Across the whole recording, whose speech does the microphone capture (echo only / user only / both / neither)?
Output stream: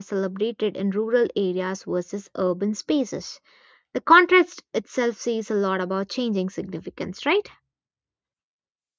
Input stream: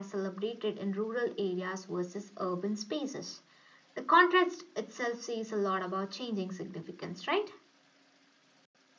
echo only